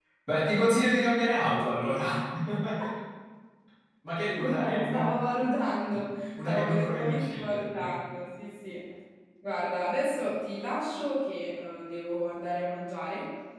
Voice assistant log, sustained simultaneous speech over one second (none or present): present